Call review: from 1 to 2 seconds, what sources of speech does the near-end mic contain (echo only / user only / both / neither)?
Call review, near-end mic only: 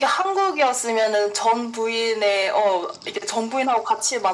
echo only